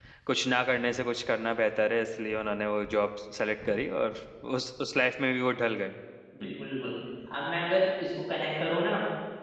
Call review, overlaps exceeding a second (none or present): none